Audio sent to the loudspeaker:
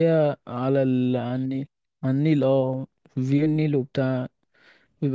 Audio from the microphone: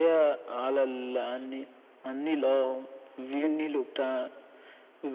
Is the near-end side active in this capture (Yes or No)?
No